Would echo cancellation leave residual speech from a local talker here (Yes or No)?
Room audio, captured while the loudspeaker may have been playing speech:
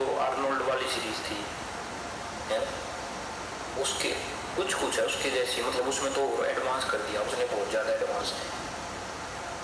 No